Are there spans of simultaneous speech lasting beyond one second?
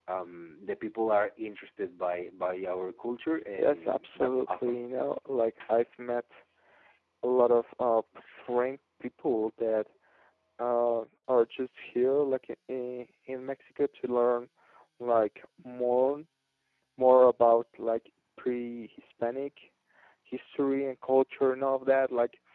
Yes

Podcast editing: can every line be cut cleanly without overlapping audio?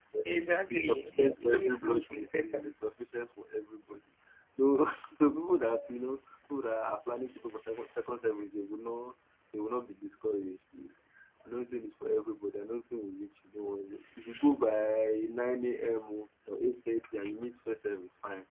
No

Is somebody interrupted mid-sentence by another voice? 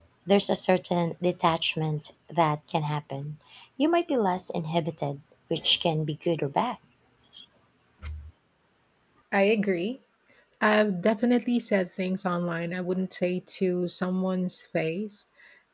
No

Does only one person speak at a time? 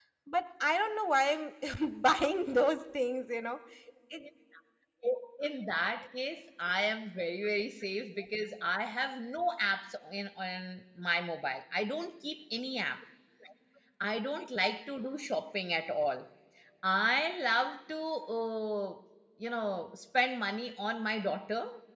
Yes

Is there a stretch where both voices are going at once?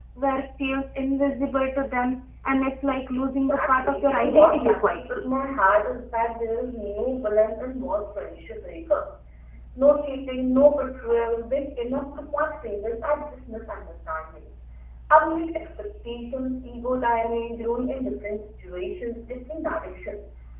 Yes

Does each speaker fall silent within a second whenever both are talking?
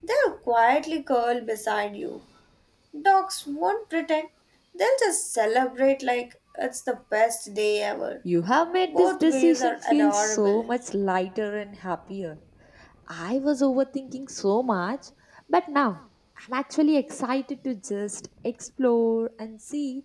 No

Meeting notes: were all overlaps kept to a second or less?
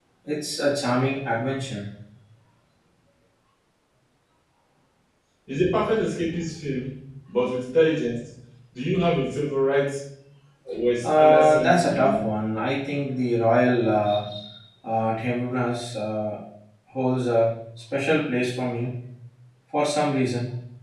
No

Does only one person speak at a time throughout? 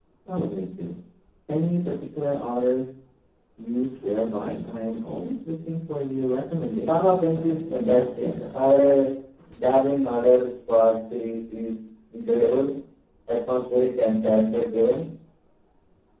No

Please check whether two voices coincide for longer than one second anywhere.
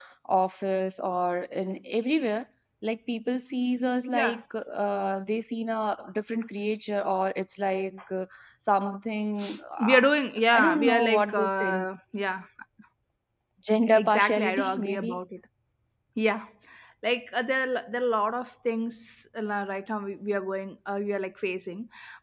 Yes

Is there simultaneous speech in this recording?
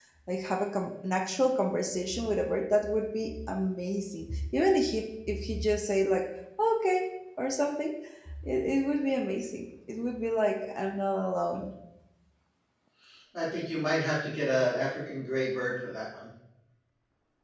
No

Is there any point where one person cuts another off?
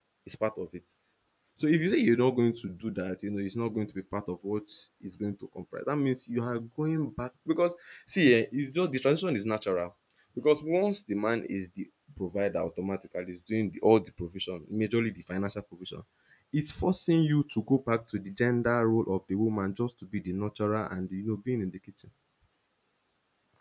No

